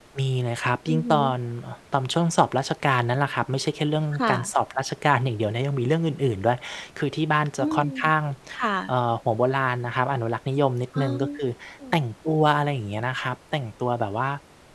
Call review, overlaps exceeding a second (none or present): none